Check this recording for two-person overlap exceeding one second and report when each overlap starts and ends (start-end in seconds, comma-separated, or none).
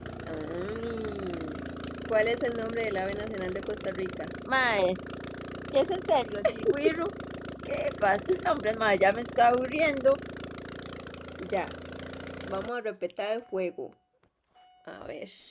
none